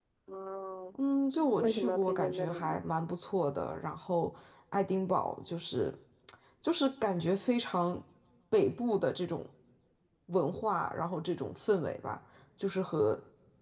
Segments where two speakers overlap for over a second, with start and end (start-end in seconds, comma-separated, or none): 1.4-2.8